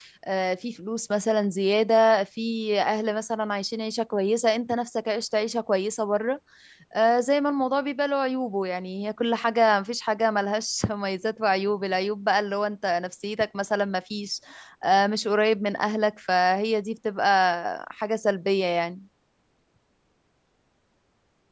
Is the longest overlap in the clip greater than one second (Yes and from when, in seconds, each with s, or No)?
No